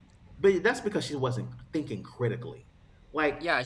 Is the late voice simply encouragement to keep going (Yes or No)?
No